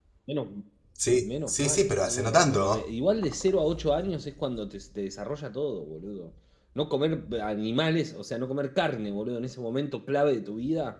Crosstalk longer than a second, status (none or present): present